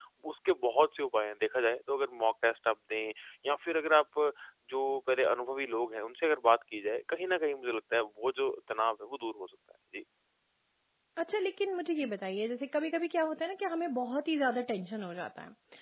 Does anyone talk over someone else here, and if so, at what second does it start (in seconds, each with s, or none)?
none